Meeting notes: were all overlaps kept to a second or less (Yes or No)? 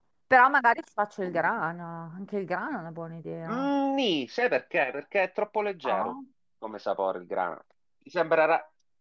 Yes